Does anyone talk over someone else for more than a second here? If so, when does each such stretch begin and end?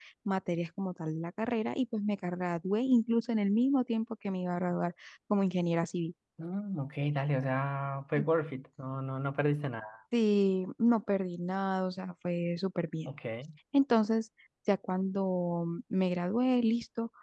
none

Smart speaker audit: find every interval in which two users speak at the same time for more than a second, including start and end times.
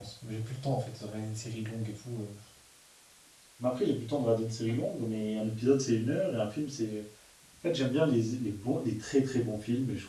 none

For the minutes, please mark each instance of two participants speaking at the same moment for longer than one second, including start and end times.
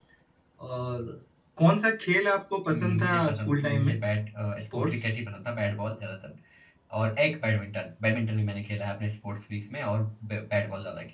2.7-3.9

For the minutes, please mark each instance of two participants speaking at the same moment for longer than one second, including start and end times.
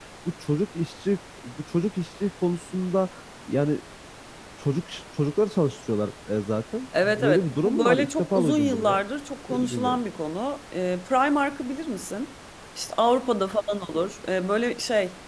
7.0-9.0

